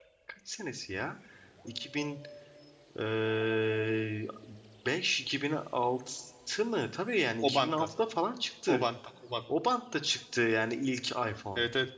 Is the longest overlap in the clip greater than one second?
No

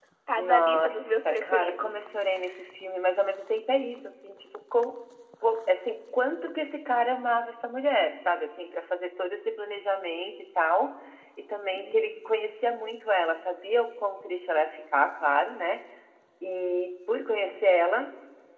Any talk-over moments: Yes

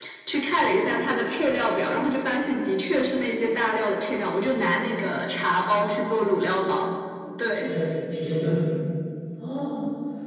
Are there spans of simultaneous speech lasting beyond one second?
No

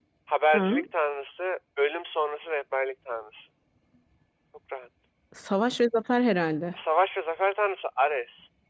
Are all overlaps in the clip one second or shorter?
Yes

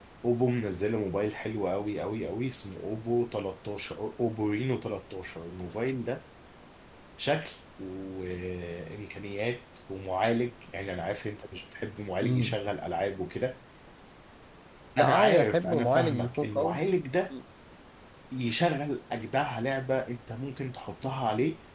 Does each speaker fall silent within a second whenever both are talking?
No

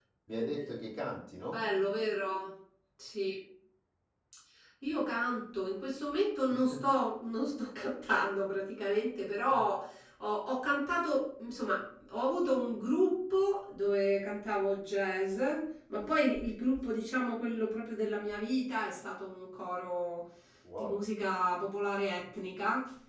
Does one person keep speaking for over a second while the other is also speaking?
No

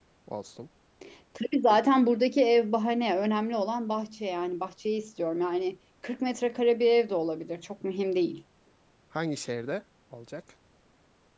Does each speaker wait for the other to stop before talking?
Yes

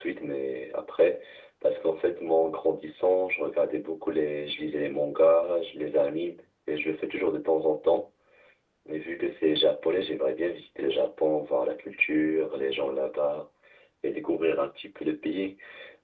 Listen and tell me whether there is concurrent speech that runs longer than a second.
No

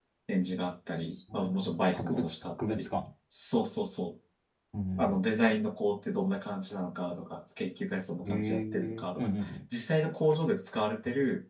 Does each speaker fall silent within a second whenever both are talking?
No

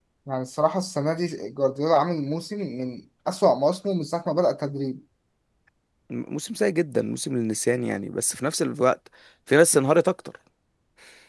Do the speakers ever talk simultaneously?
No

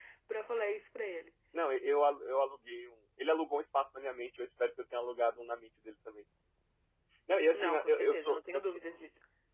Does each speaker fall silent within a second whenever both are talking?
No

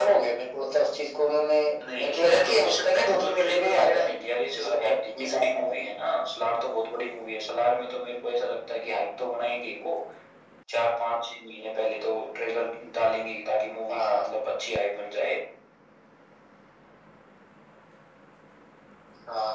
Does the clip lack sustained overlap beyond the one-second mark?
No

